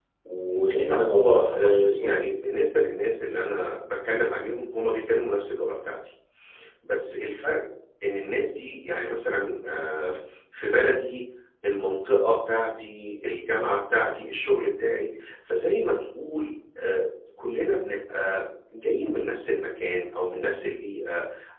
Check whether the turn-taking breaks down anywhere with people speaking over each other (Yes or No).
Yes